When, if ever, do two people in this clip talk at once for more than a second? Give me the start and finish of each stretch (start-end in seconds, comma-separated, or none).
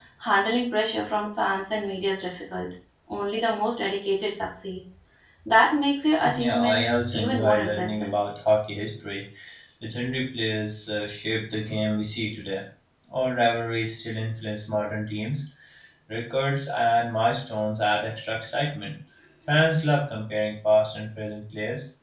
6.3-8.1